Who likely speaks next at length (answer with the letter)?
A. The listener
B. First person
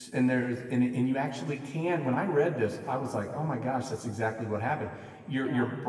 B